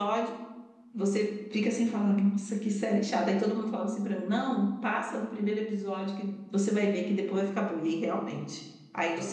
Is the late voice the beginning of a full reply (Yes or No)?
No